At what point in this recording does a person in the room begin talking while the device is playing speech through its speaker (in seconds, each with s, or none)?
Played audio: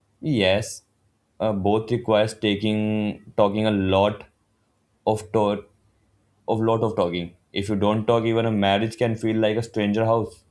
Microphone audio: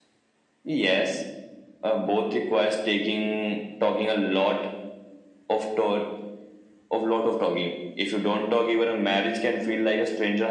none